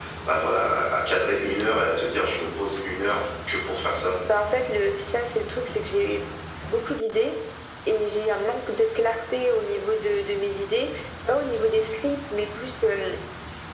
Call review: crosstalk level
none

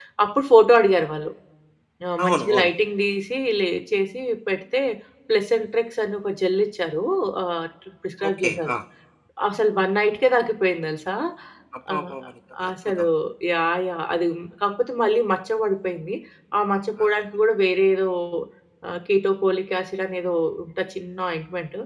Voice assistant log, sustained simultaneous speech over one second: none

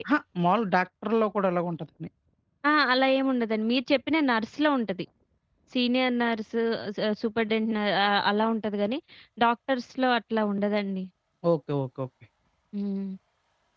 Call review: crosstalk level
none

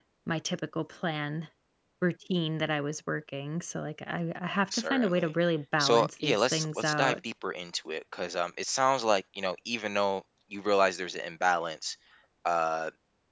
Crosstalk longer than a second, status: present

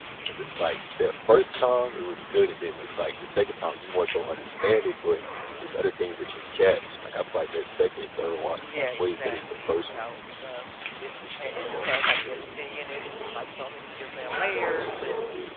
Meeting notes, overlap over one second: present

